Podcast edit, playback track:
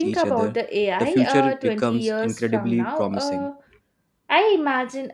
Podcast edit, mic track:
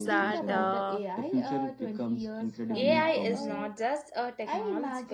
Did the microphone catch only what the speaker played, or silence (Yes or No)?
No